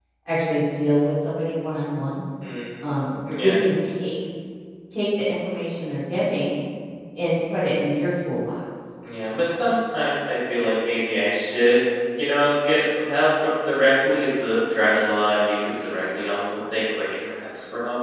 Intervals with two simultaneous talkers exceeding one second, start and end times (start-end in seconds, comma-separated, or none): none